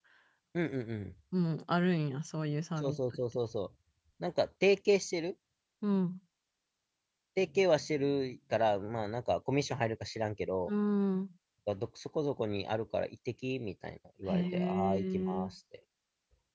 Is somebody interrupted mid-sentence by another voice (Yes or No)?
Yes